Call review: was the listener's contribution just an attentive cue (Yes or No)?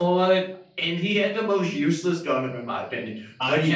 Yes